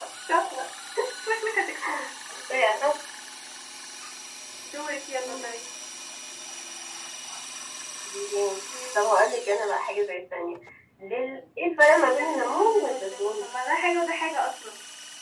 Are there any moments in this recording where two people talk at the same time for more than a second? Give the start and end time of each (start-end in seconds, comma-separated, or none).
12.0-13.4